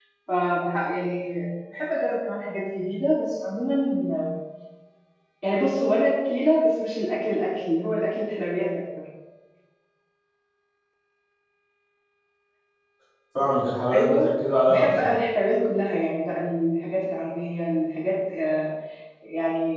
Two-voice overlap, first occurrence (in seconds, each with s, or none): 13.9 s